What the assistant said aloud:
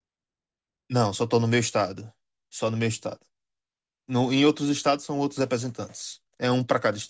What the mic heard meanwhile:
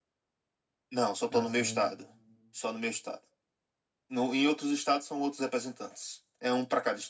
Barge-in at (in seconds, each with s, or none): 1.3 s